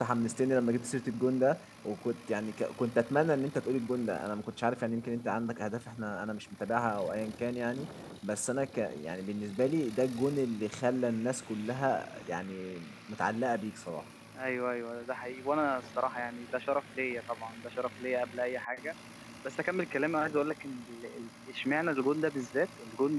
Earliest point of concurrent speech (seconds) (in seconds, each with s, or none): none